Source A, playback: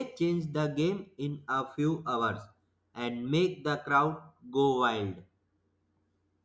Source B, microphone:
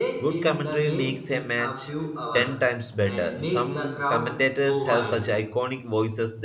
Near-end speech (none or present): present